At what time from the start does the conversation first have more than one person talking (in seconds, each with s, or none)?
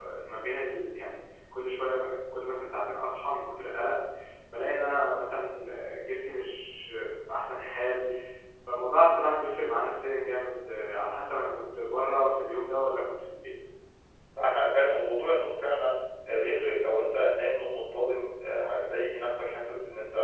none